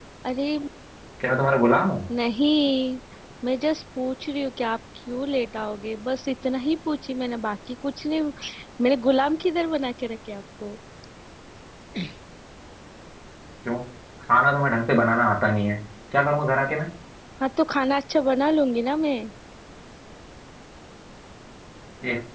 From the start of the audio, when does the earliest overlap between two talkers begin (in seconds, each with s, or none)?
none